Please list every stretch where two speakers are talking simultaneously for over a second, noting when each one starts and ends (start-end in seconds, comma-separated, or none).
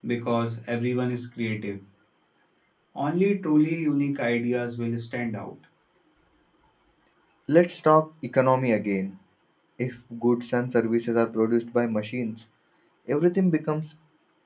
none